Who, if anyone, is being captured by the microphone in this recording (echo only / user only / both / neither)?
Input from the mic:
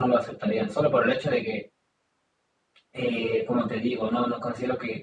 echo only